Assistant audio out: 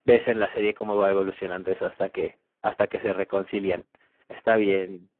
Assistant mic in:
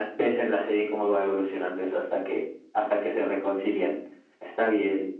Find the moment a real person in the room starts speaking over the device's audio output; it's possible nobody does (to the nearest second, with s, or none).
none